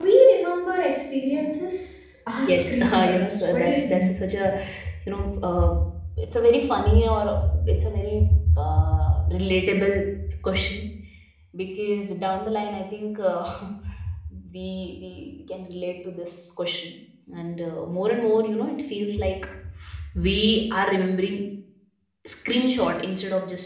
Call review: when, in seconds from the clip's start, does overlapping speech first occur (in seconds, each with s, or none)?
2.5 s